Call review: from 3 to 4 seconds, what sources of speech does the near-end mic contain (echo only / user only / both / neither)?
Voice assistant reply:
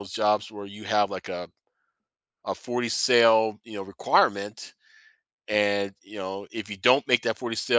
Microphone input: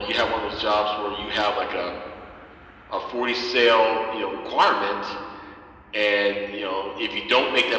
echo only